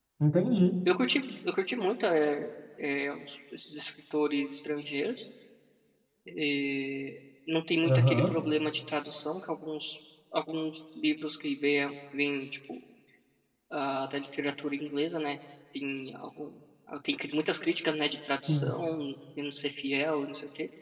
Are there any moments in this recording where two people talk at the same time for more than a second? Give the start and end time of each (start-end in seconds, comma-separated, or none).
none